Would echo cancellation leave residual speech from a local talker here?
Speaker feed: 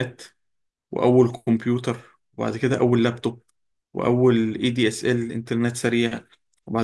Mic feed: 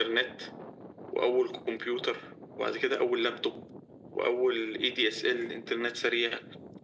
No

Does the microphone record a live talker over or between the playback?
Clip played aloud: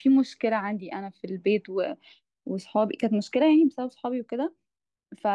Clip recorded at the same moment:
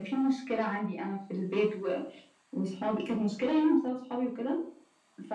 No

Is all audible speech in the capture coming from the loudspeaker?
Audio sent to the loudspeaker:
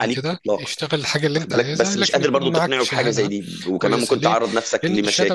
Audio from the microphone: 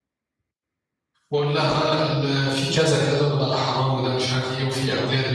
No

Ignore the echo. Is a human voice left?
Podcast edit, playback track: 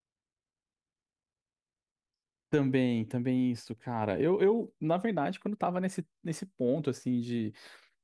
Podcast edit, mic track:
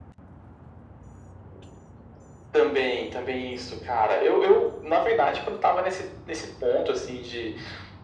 No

